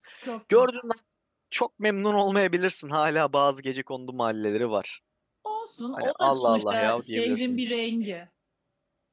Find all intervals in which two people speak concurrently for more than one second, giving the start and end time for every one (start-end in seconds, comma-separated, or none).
5.9-7.6